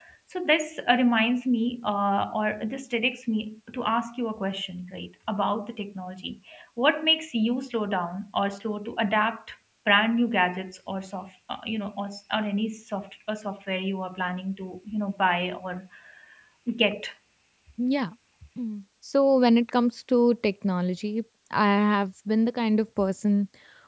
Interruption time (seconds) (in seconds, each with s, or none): none